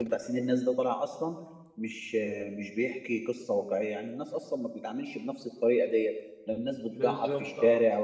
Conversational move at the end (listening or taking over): listening